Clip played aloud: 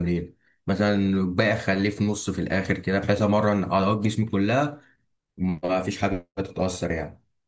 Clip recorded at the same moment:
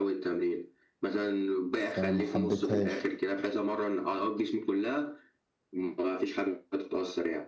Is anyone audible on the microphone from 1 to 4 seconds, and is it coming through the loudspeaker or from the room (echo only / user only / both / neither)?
both